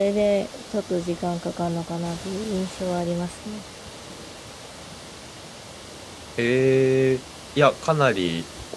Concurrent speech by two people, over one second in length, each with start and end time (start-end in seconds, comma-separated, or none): none